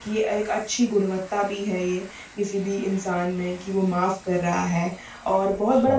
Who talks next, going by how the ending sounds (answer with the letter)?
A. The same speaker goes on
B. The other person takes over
A